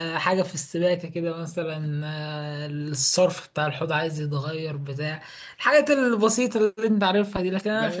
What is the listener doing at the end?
taking over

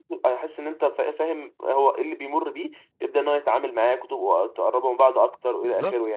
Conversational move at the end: taking over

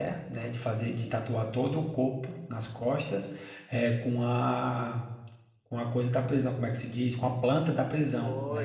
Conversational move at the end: taking over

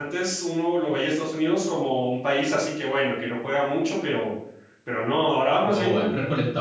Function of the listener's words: taking over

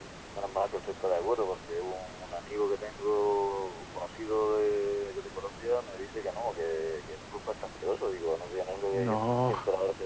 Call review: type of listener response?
listening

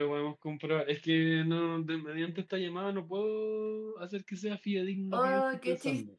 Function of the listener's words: taking over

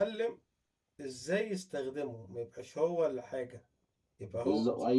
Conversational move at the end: taking over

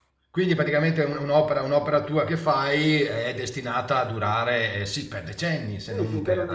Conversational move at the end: taking over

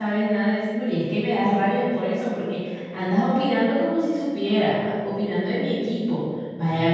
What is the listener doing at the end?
listening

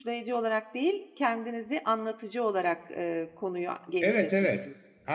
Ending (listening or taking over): taking over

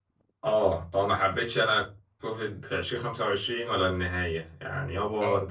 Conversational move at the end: listening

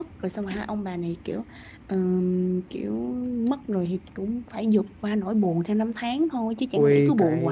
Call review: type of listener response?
taking over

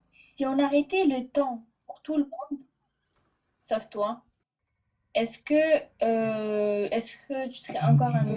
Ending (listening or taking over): taking over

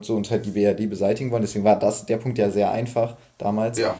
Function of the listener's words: listening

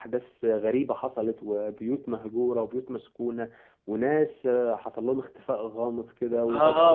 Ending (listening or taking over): taking over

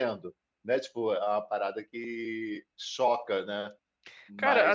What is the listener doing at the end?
taking over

